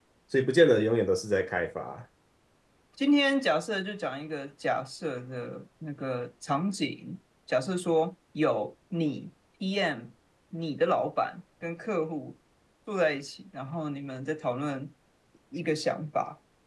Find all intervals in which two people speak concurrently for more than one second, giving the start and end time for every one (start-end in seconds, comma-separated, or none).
none